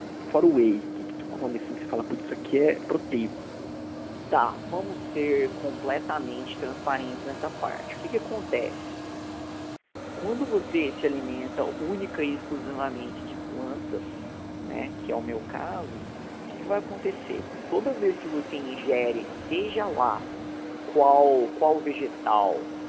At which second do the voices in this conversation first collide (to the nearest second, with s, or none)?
none